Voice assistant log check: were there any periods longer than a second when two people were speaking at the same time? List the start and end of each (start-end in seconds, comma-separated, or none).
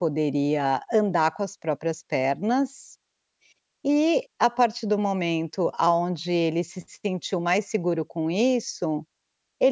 none